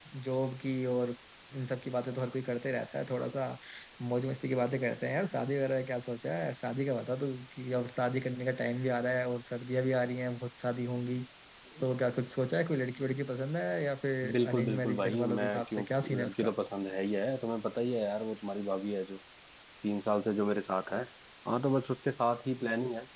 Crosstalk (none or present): present